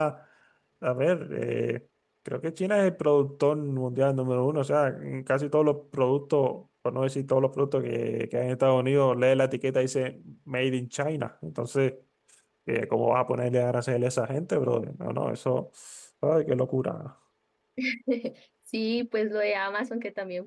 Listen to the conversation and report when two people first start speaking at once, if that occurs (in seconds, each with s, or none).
none